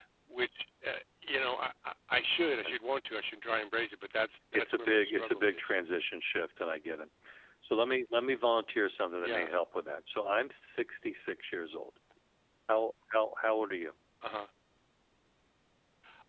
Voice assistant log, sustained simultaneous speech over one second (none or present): present